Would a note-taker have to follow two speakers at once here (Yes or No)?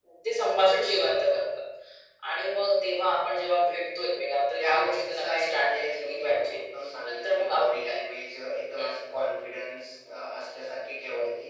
Yes